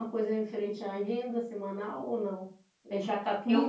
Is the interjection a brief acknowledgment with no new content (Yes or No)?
Yes